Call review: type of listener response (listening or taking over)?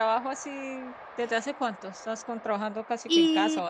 taking over